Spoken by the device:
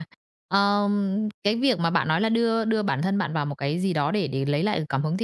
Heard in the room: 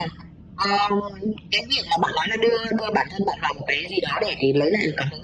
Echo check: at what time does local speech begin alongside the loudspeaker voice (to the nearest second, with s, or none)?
none